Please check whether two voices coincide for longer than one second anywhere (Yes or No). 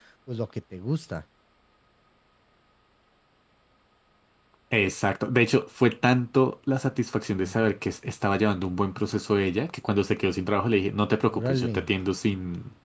No